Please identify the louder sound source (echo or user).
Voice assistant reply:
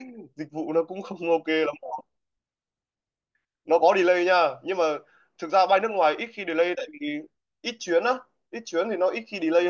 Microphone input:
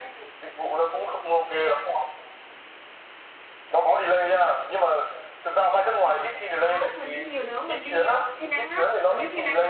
echo